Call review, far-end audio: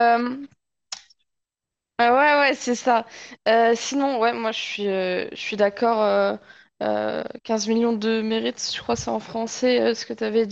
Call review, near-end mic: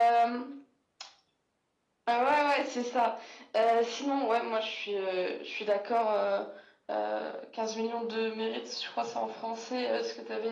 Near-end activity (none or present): none